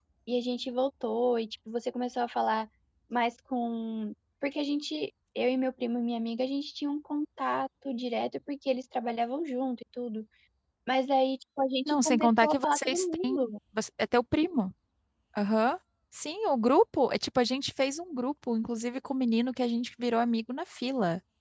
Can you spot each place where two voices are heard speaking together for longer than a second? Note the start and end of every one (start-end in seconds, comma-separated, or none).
11.9-13.4